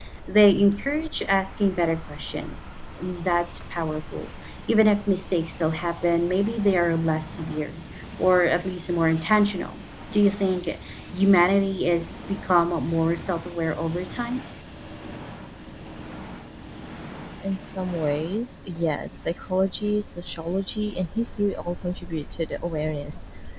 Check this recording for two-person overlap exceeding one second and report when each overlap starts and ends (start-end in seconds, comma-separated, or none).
none